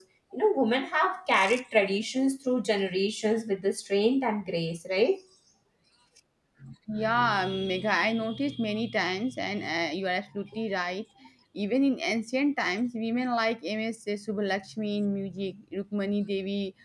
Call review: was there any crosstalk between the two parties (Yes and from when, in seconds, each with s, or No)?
No